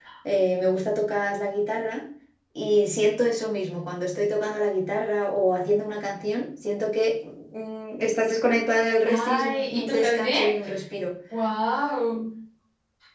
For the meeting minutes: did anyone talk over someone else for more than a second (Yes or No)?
Yes